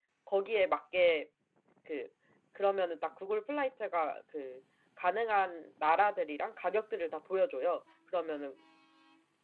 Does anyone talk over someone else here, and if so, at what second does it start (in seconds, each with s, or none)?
none